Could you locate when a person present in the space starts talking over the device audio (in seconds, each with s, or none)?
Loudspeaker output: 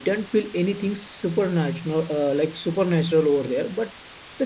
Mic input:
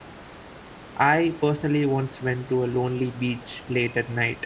1.0 s